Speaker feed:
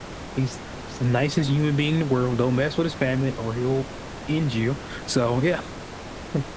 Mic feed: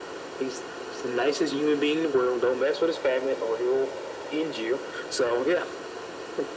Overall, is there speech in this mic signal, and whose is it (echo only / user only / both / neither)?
echo only